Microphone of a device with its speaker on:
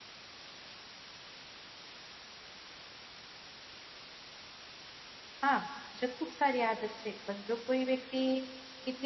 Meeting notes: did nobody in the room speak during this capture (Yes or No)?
No